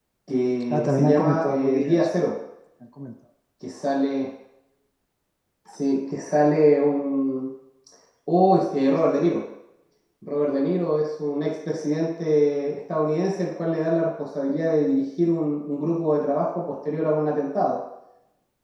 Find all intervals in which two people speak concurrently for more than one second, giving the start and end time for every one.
0.7-2.0

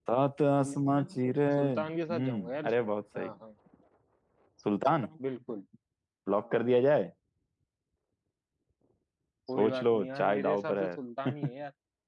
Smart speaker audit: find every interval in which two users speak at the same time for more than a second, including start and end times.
1.6-3.3, 9.6-11.0

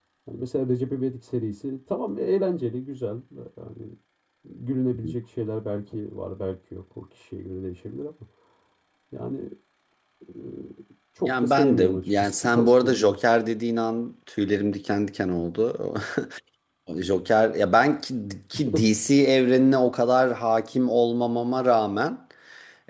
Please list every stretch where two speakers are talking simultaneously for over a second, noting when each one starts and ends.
11.3-13.2

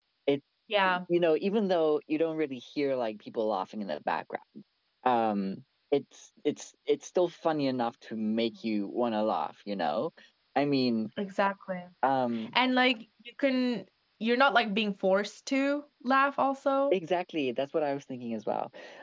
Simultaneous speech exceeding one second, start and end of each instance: none

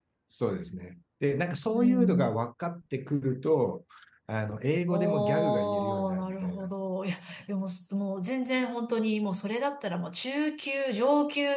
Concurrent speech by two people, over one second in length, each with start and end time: 4.9-6.7

